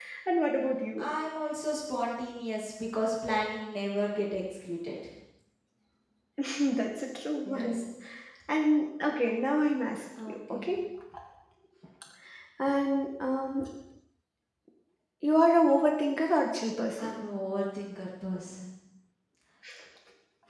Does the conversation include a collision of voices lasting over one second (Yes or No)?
No